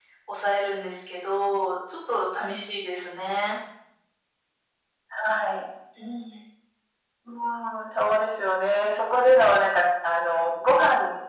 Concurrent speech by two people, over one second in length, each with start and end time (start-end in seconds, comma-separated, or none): none